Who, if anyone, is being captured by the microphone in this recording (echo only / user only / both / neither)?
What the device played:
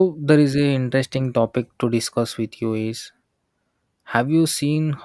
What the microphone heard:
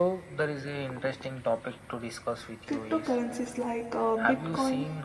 both